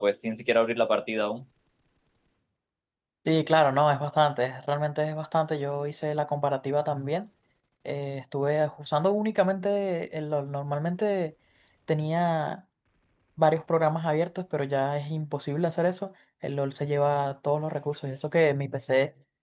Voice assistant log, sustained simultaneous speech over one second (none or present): none